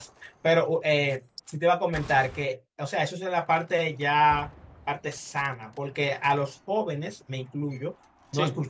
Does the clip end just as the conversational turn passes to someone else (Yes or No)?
No